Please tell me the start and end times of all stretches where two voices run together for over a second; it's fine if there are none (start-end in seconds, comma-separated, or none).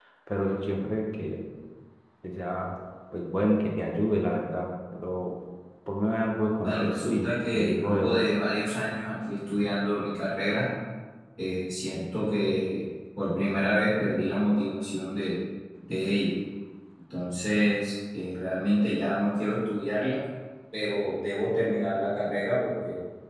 6.6-8.2